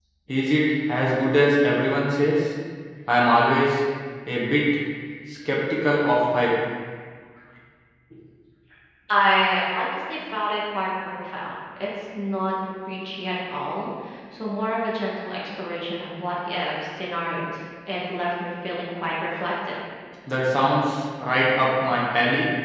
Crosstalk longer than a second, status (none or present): none